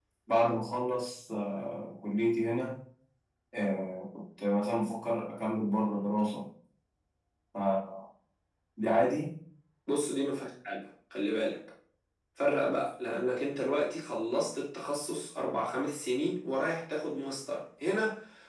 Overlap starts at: none

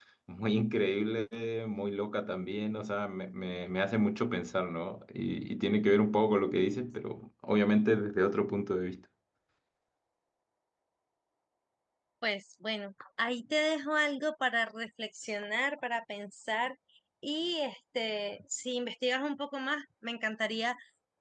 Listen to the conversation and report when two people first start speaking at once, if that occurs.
none

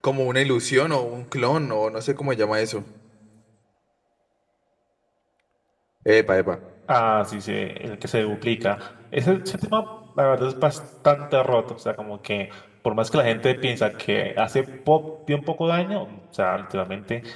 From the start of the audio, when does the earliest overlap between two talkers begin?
none

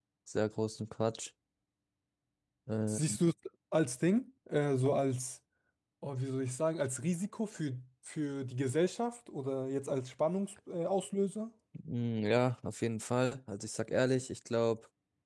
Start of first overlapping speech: none

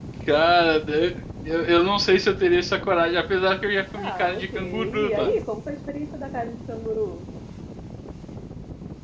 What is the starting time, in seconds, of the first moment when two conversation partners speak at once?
4 s

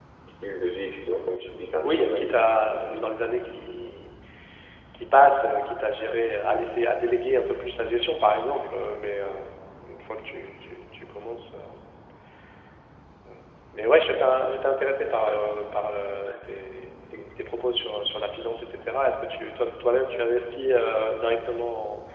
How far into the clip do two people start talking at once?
2 s

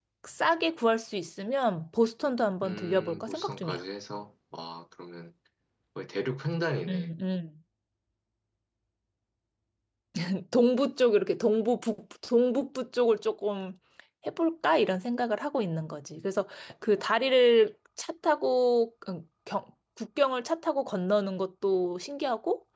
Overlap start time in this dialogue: 3 s

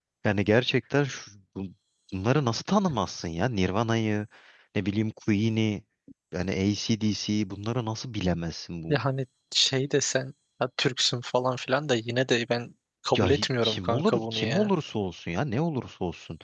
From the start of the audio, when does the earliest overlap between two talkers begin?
13 s

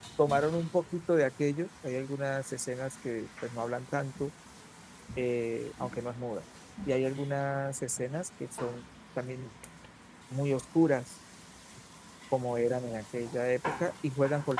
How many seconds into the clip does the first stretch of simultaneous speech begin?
none

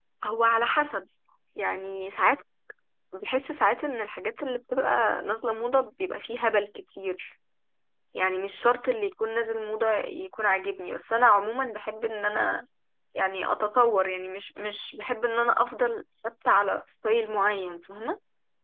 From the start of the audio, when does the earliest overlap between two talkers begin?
none

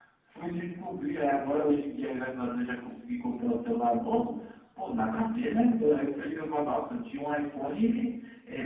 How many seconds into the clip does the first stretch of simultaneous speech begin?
none

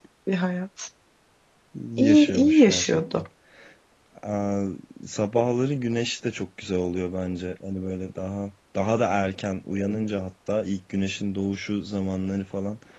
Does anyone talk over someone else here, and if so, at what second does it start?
2 s

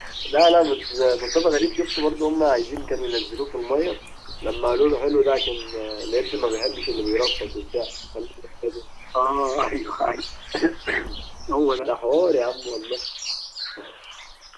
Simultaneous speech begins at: none

